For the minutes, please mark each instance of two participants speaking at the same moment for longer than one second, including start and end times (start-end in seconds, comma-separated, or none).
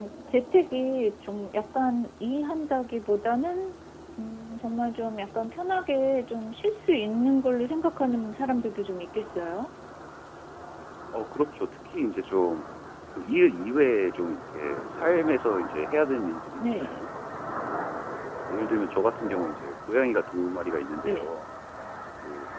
none